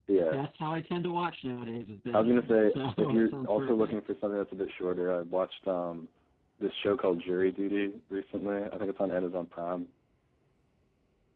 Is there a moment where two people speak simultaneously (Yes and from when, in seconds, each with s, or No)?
Yes, from 2.1 s